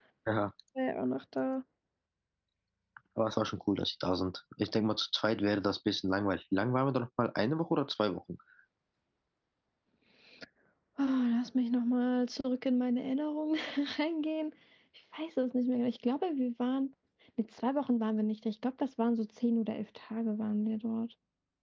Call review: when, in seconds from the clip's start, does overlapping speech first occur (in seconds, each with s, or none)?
none